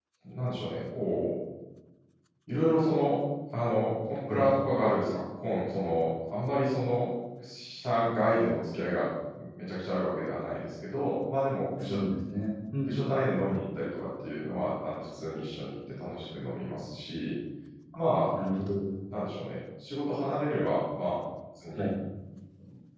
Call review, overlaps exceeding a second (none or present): none